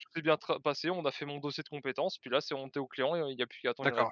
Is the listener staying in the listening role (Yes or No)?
No